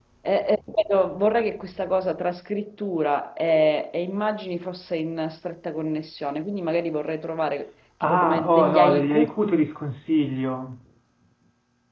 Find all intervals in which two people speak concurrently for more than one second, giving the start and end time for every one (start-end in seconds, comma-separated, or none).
8.0-9.3